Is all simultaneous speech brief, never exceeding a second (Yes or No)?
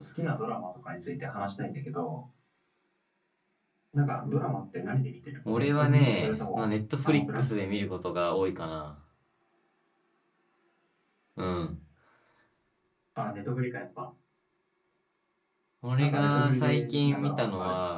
No